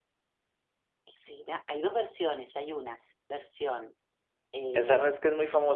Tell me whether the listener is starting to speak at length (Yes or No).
Yes